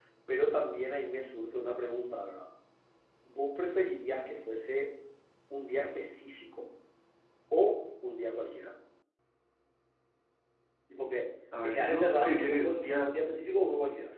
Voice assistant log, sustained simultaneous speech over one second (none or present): present